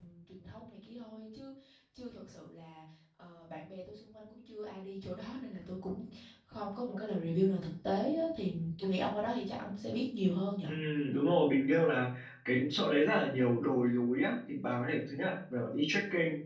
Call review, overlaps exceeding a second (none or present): none